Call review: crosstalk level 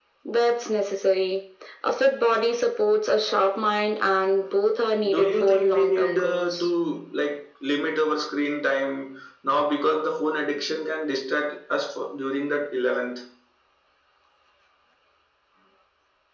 present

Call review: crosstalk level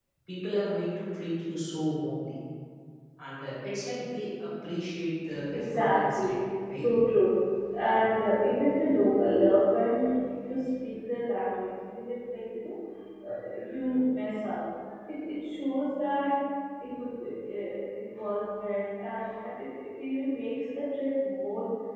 present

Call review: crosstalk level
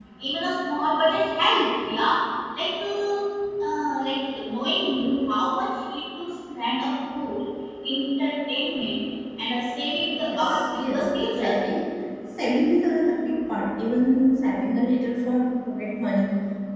present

